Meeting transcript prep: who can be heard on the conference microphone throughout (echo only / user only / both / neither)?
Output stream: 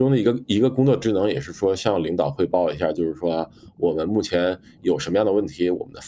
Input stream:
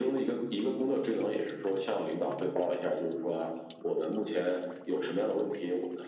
echo only